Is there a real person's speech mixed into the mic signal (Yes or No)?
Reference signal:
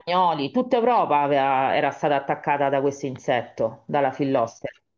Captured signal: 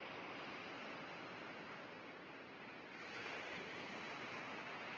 No